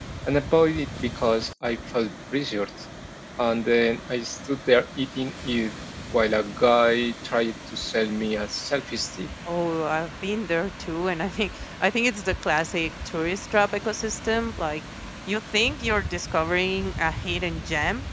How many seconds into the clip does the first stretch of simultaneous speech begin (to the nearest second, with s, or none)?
none